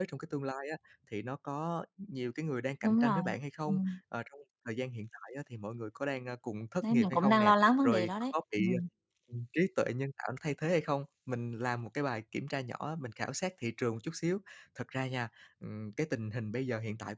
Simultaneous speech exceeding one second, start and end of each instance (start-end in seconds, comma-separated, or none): 6.8-8.6